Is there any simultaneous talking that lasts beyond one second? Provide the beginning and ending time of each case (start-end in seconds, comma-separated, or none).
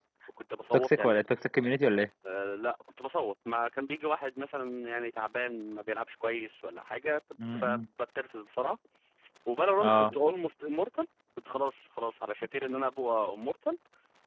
none